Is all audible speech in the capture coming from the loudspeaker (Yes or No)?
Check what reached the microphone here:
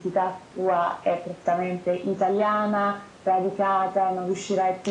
Yes